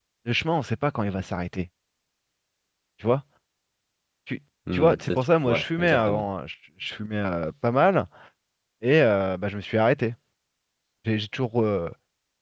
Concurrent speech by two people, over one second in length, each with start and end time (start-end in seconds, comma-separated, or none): 4.7-6.2